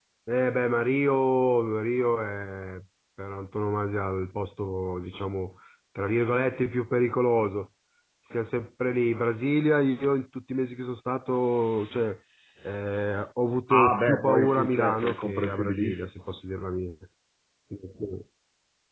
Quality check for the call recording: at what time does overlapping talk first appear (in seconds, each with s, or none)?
13.7 s